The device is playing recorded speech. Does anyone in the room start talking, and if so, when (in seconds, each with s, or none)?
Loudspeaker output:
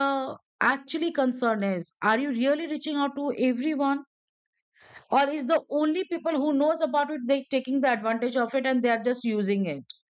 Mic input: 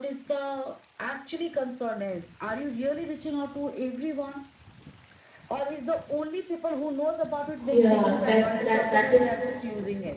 7.7 s